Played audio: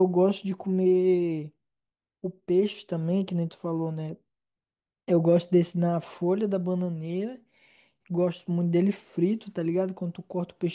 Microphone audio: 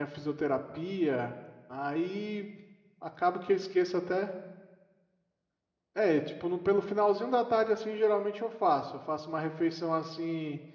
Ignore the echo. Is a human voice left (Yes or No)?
Yes